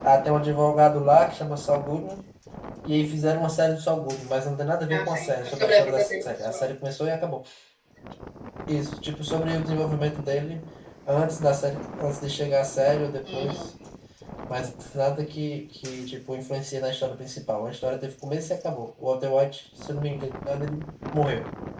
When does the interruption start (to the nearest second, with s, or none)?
5 s